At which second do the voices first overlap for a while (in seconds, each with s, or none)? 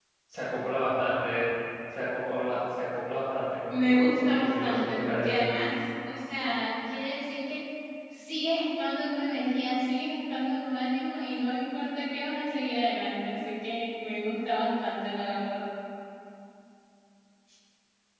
3.7 s